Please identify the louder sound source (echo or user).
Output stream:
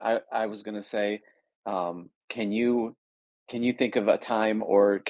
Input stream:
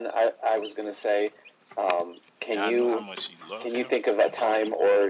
echo